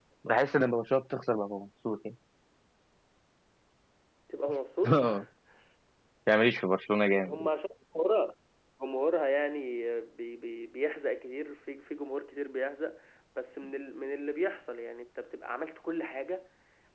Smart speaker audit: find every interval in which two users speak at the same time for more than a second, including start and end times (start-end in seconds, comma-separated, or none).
none